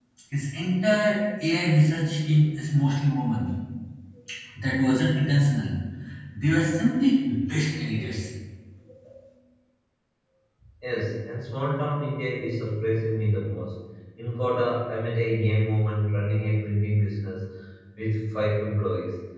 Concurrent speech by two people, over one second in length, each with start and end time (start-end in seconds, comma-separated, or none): none